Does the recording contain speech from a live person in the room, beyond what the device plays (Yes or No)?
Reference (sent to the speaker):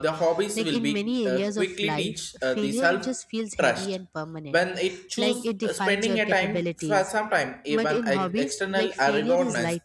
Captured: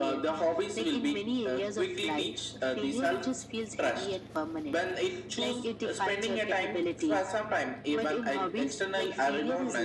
No